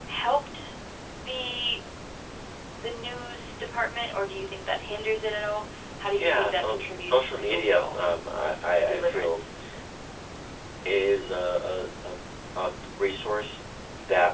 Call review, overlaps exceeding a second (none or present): present